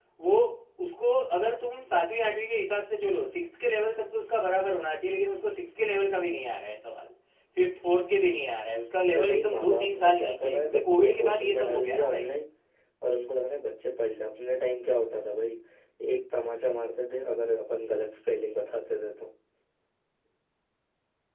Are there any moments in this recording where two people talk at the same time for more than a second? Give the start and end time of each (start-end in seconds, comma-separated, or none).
9.0-12.3